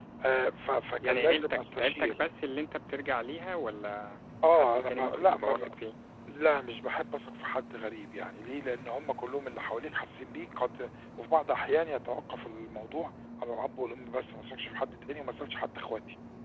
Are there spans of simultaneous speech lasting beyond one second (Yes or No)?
Yes